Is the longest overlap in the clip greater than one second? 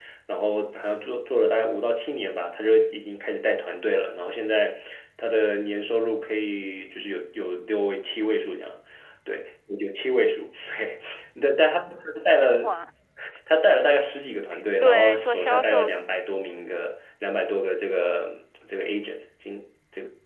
Yes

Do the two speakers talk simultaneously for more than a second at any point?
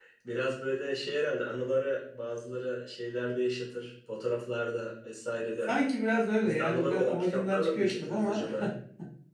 Yes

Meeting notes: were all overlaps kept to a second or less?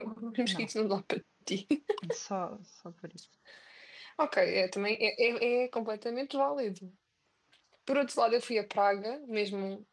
Yes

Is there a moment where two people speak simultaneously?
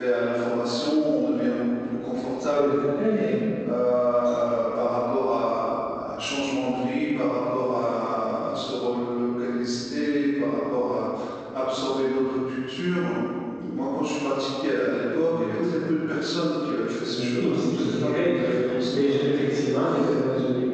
Yes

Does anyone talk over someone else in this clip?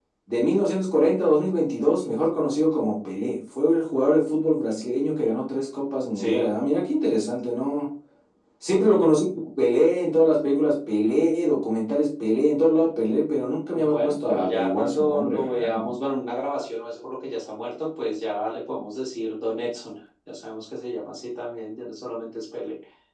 Yes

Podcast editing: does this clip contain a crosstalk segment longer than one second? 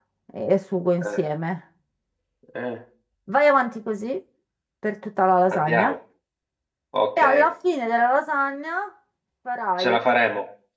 No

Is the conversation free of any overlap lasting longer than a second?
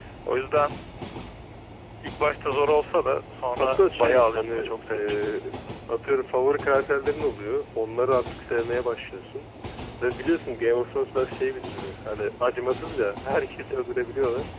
No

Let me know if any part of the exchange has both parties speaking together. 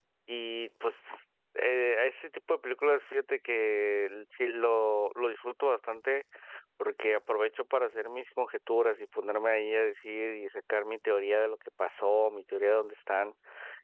No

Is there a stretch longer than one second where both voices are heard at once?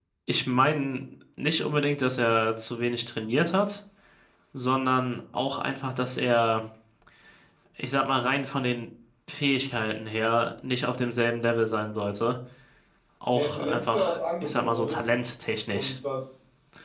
Yes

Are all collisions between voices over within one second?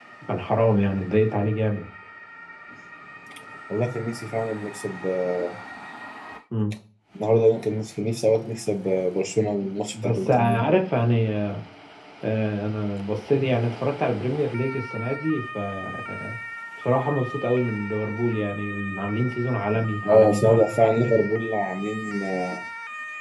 No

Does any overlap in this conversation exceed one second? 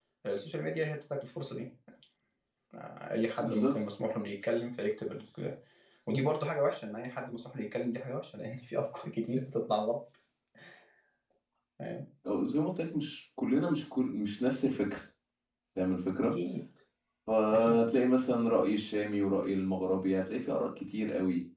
No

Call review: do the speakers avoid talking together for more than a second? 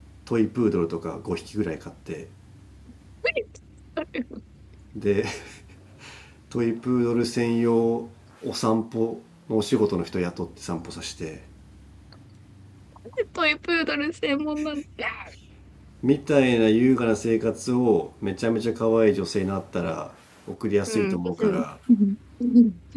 Yes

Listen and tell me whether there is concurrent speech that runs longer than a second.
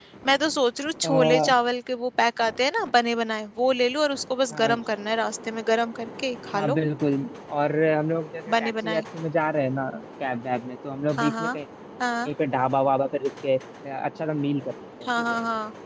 No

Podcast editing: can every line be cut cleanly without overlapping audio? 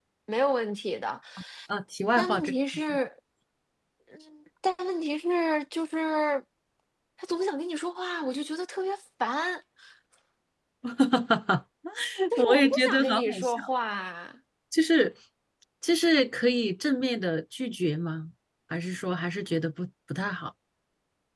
No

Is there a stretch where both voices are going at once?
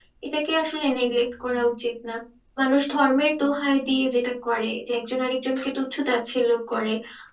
No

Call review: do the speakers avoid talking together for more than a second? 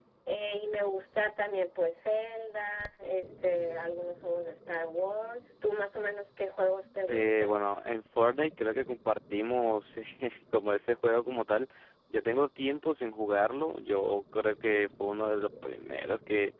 Yes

